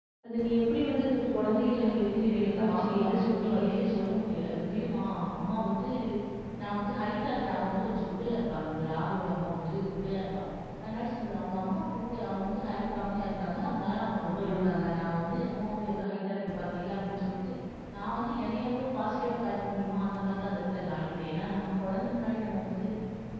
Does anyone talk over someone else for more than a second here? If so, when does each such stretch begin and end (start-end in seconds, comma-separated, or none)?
1.3-3.6